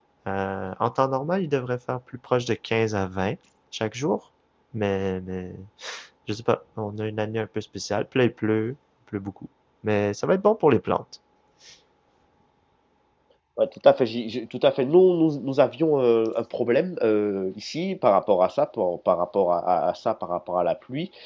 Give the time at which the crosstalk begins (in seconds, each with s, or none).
none